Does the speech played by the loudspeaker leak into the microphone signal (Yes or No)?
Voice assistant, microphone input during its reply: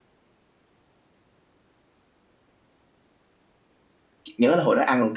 No